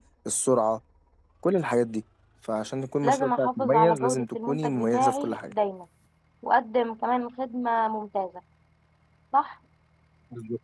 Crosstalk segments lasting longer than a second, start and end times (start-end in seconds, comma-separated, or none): 3.0-5.5